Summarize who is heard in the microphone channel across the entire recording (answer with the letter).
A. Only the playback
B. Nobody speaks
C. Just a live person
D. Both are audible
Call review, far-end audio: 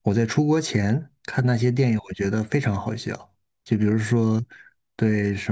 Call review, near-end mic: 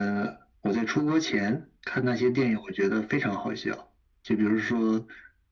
A